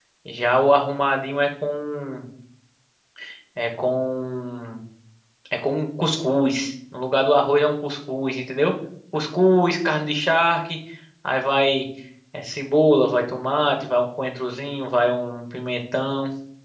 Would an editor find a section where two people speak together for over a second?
No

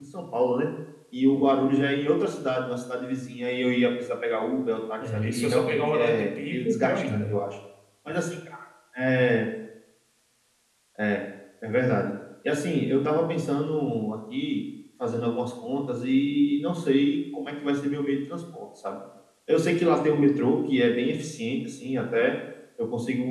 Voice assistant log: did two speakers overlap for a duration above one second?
Yes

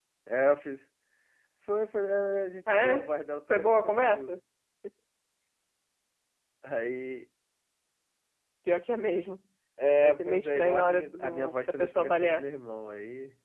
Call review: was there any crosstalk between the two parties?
Yes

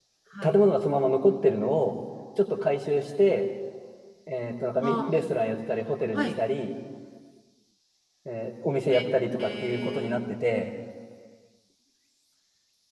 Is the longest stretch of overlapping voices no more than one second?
No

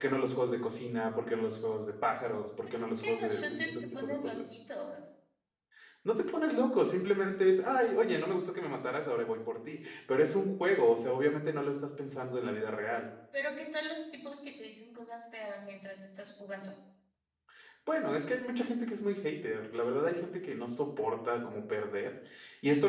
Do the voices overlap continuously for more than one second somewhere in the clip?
Yes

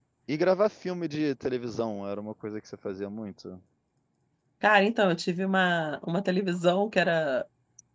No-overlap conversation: Yes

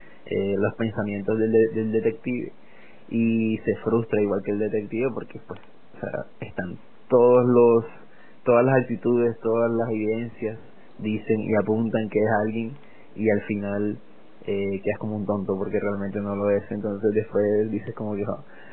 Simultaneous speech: No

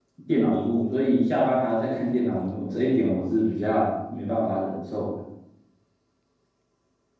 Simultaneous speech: No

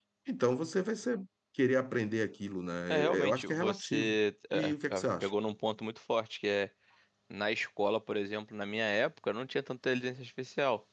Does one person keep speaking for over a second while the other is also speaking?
Yes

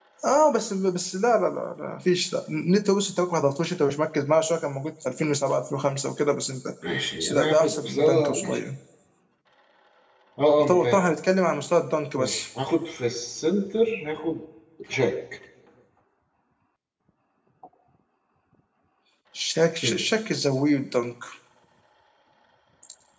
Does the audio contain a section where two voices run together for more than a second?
Yes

